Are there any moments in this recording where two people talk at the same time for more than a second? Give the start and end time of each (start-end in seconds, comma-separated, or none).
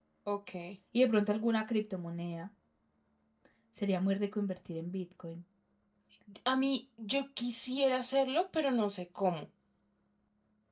none